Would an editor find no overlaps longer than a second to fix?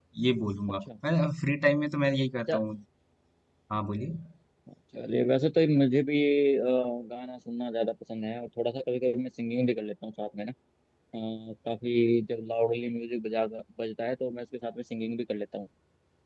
Yes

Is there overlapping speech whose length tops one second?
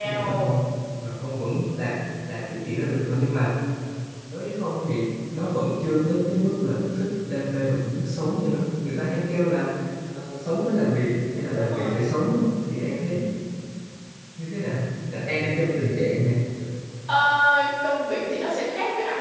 No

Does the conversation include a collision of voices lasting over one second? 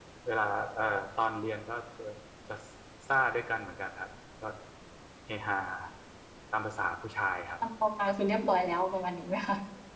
No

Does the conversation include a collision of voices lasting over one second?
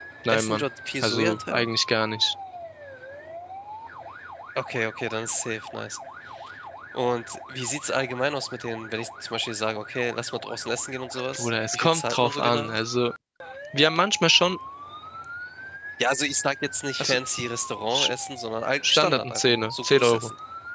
Yes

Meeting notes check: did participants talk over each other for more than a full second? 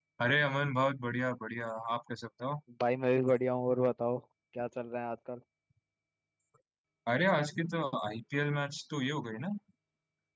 No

